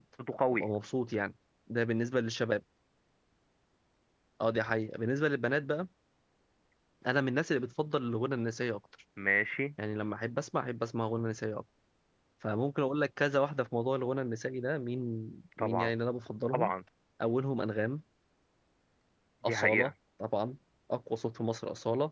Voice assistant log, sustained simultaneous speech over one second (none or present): none